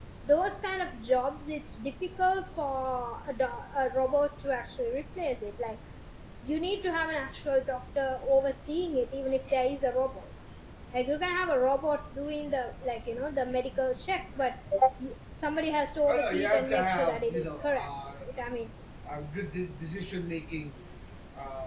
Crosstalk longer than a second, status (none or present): present